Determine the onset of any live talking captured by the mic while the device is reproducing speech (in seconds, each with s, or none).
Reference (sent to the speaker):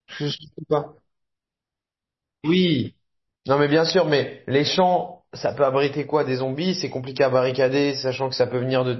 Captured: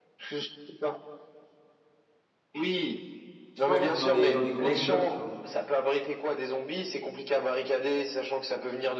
3.5 s